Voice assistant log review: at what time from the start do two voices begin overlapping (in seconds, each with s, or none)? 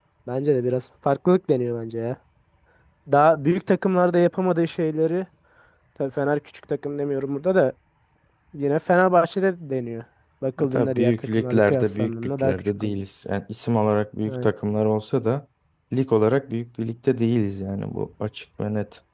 10.6 s